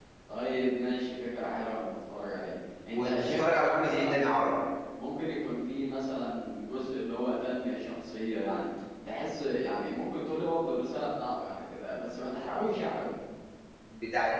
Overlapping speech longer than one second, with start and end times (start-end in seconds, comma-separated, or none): 2.9-4.2